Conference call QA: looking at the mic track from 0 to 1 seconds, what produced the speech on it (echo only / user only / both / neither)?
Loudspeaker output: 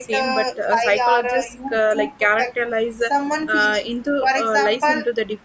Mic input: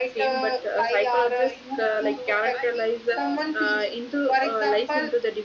echo only